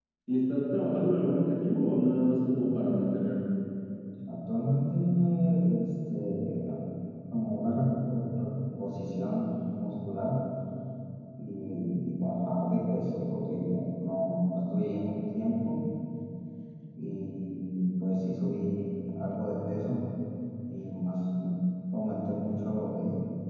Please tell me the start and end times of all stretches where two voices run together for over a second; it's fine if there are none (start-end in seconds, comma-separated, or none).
none